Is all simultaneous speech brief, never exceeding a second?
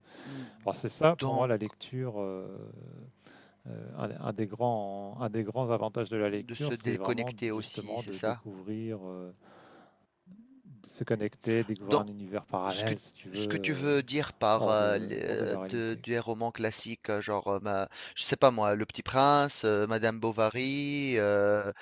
No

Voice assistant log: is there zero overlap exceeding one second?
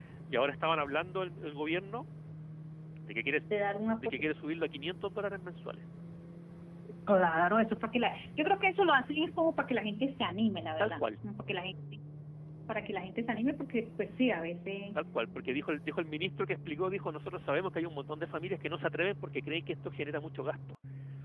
Yes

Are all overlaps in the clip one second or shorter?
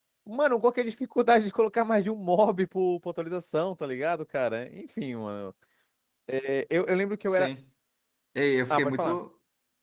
Yes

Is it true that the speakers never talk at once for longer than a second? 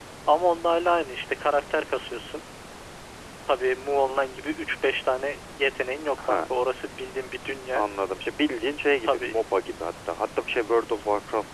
Yes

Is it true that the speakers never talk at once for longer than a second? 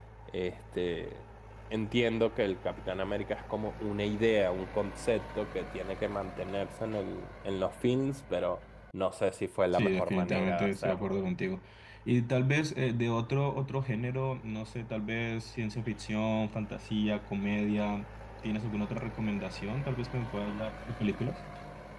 No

